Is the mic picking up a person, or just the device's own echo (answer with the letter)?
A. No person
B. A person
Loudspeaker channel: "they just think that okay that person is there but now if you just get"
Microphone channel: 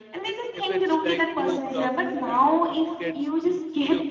B